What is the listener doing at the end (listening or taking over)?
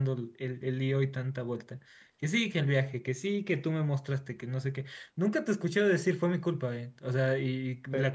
taking over